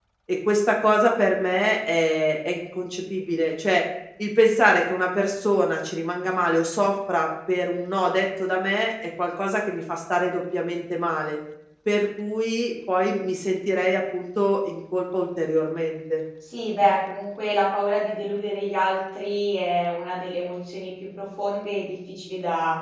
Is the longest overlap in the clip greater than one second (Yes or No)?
No